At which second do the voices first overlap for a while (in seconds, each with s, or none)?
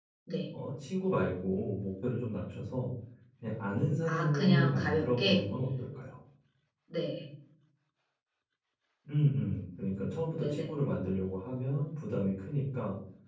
4.0 s